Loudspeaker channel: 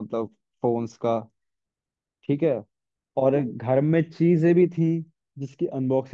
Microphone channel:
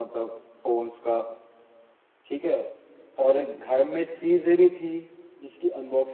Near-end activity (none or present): none